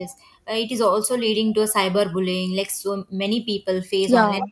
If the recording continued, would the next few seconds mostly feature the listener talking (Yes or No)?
No